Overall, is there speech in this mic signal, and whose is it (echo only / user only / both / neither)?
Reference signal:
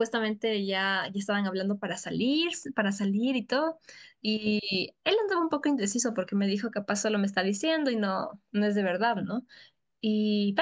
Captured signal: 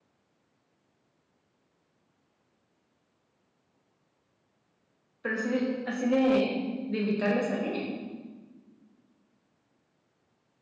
user only